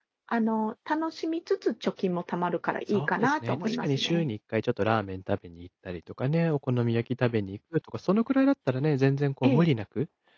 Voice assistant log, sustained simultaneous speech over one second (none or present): present